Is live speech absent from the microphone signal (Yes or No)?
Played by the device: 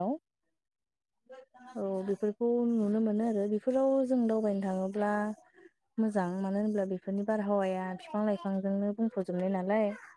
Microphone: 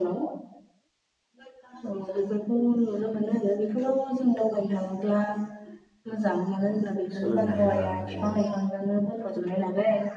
No